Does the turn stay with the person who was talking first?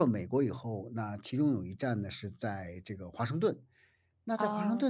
Yes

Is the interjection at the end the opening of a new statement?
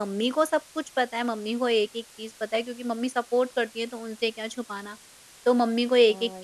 Yes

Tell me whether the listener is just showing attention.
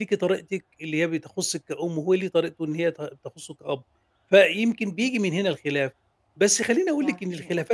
Yes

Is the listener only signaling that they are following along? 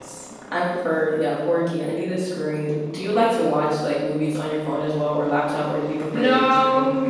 No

